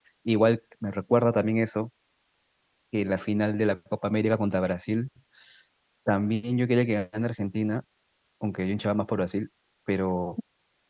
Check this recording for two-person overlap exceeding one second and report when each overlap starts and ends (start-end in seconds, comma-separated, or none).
none